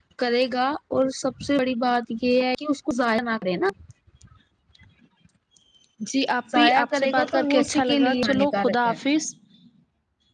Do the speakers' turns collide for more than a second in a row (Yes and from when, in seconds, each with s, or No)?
Yes, from 6.5 s